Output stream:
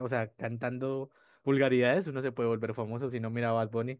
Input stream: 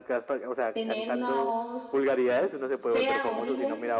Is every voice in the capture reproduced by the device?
No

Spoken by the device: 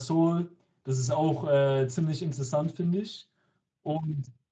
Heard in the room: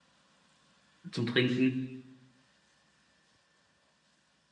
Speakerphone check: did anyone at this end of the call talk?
Yes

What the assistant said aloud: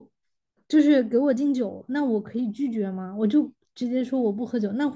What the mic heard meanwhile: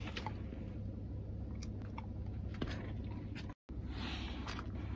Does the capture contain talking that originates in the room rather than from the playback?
No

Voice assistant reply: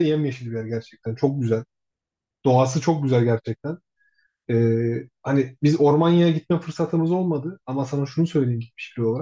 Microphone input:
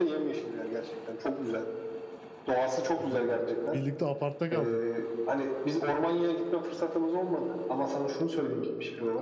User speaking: Yes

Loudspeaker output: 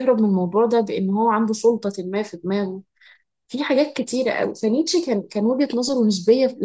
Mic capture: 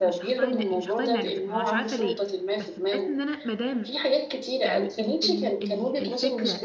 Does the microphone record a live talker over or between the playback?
Yes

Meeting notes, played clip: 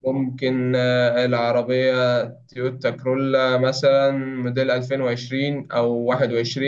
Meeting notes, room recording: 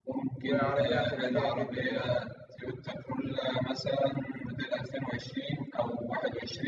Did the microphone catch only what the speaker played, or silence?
No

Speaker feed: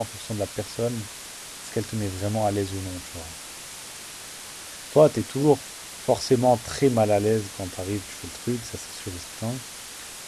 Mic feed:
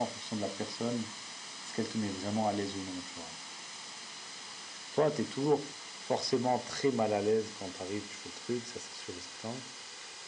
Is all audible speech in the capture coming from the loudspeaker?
Yes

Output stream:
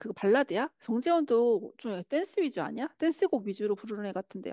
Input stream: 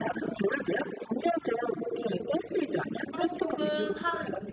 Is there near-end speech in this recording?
Yes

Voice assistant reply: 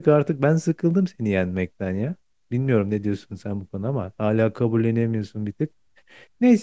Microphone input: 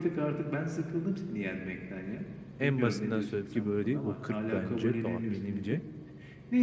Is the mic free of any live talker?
No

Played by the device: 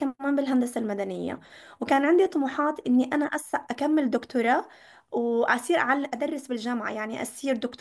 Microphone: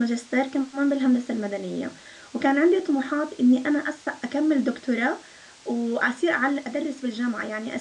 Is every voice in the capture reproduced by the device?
Yes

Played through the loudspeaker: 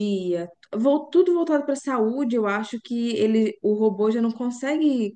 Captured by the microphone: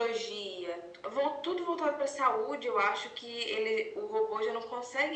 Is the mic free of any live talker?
Yes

